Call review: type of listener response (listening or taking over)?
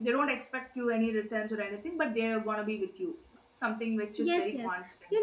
taking over